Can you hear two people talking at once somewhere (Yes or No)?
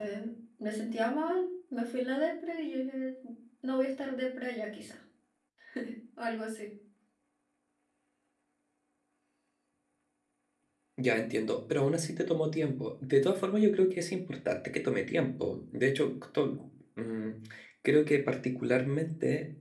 No